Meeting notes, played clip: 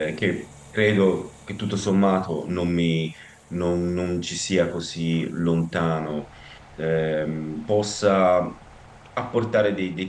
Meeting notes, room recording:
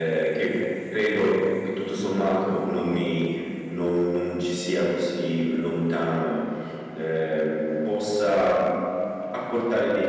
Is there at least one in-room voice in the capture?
No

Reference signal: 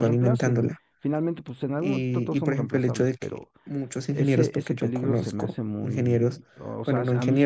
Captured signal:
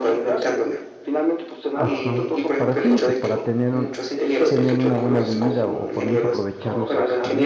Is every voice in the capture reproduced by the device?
No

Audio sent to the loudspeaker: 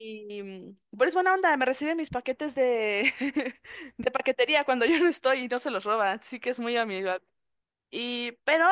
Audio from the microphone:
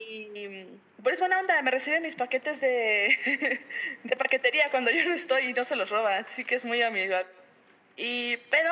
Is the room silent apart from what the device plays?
Yes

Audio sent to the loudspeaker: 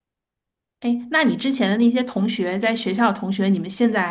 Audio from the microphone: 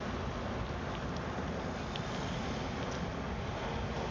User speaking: No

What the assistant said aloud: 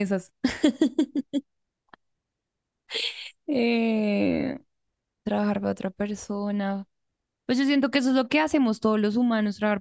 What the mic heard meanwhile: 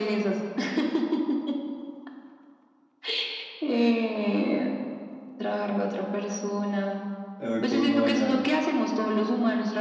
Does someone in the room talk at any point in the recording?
Yes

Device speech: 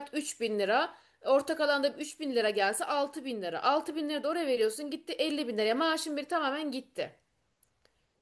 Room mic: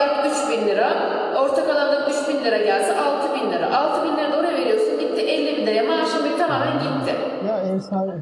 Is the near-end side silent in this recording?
No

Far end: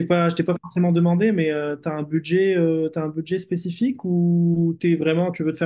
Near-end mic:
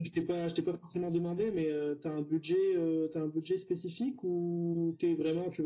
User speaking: No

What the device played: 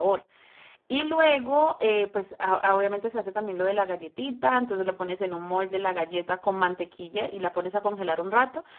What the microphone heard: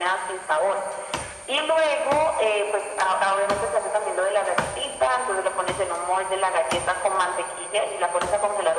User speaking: No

